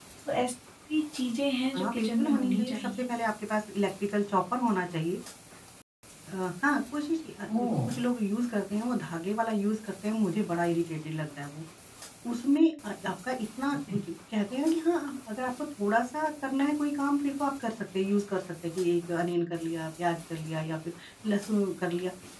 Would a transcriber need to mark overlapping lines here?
Yes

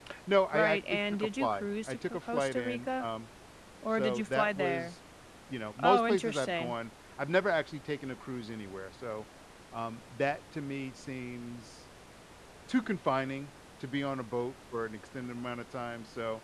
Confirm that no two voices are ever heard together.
No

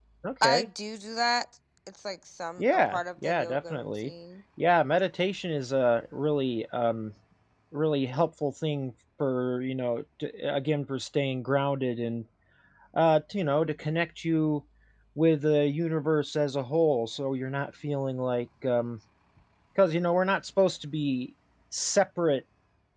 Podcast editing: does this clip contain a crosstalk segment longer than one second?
Yes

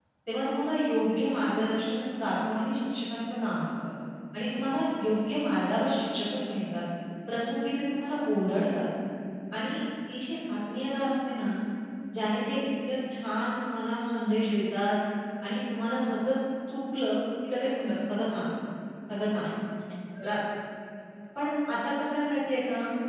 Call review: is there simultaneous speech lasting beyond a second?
No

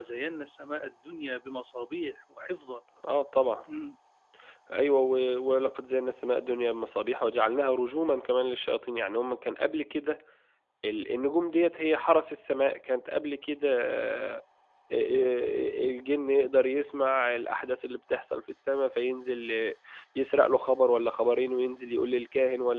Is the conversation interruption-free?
Yes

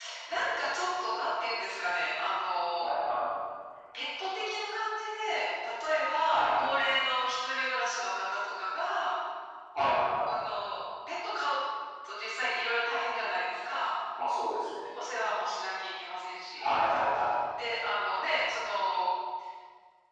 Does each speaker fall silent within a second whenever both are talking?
Yes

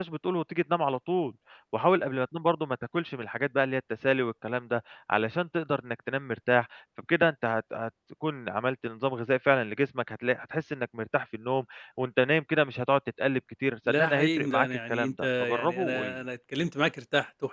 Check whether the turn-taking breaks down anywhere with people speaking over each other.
Yes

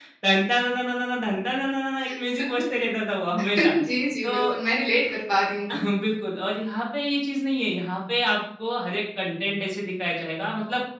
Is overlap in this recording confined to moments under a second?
Yes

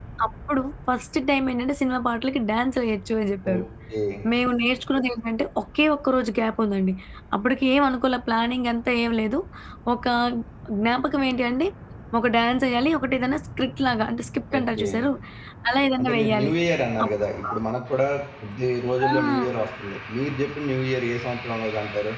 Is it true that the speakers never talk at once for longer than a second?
Yes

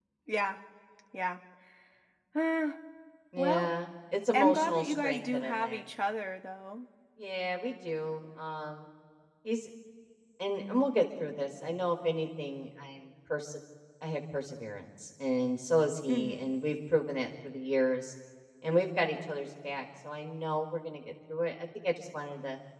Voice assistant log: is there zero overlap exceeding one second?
No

